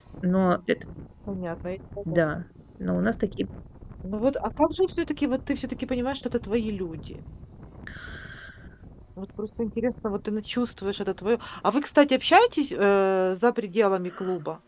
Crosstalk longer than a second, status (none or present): none